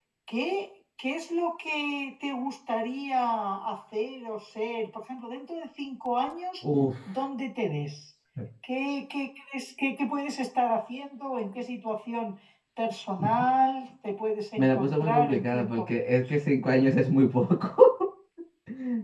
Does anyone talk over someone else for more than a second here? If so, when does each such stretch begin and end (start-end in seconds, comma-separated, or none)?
14.6-15.8